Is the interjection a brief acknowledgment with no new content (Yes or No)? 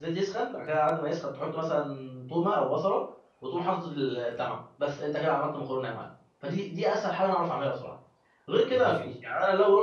Yes